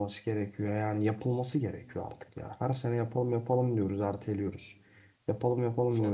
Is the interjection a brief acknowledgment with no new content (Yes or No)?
Yes